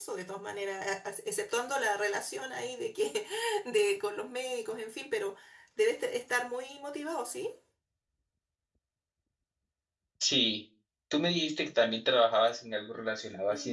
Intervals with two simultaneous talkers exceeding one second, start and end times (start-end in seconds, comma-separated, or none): none